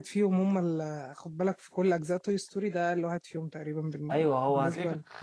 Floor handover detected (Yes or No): Yes